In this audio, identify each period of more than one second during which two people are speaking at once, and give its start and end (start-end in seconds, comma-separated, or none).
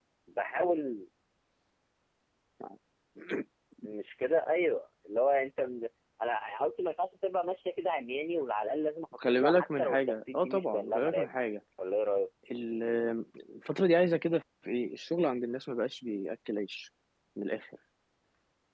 9.4-11.3